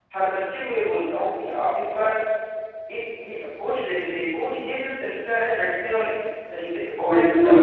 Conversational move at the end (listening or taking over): taking over